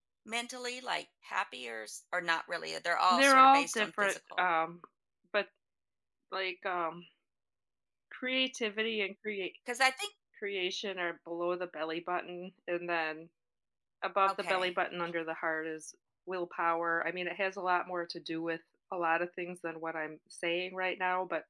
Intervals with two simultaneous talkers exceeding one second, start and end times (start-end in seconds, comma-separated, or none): 3.1-4.4